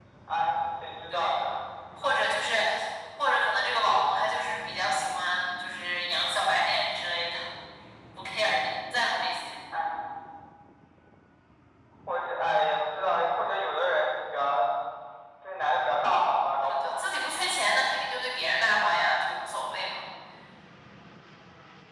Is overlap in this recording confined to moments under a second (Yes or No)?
Yes